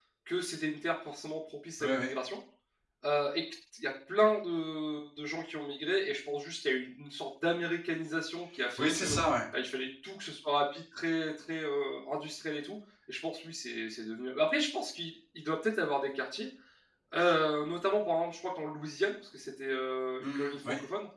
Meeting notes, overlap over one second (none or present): none